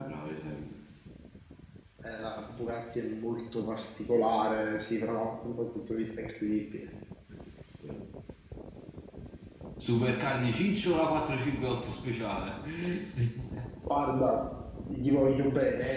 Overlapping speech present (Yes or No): No